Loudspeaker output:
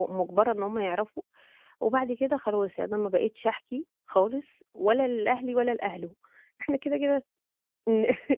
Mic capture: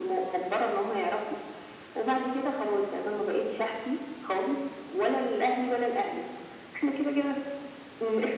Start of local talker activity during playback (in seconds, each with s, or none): none